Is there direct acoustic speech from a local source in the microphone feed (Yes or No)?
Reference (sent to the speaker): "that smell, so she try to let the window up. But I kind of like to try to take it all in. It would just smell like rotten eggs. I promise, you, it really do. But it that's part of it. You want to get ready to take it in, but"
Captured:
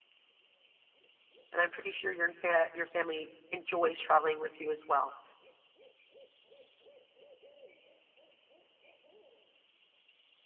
Yes